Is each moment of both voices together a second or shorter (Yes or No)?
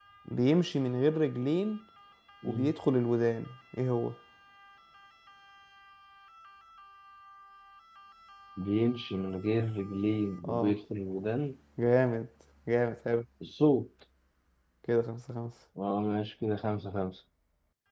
Yes